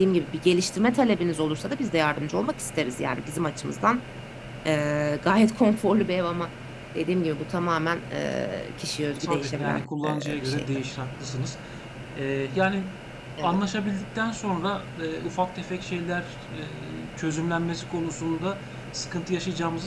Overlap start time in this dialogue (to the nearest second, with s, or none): 9 s